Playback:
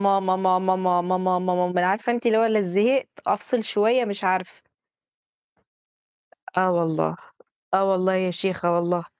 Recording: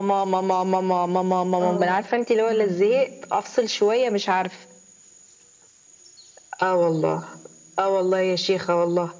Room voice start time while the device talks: 2 s

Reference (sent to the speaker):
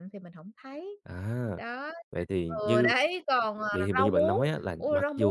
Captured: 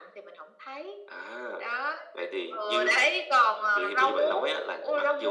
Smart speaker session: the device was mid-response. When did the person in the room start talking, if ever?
none

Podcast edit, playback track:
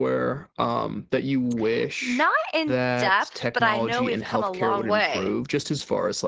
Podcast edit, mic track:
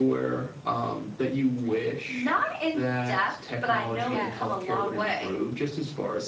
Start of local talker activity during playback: 4 s

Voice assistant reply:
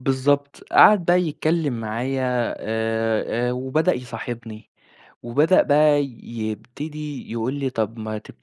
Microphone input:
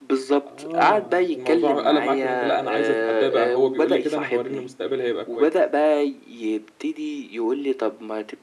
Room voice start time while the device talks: 0 s

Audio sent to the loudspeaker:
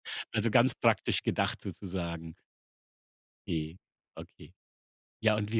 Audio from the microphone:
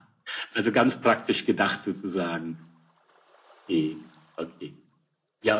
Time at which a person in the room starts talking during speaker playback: none

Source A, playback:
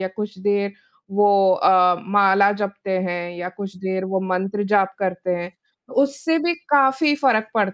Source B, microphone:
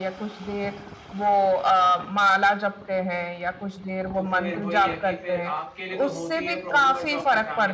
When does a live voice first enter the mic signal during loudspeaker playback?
4 s

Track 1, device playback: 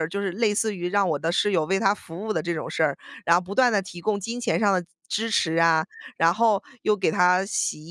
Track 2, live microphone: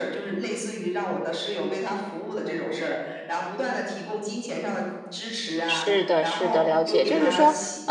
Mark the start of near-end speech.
6 s

